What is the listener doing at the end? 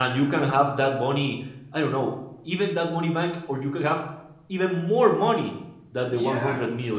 taking over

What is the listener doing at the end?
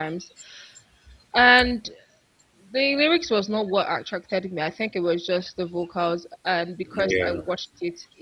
listening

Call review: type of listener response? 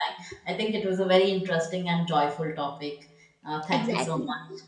taking over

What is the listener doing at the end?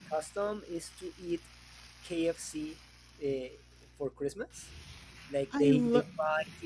listening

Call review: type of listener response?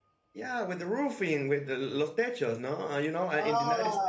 listening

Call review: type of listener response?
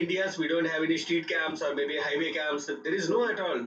taking over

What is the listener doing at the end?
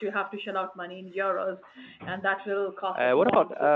taking over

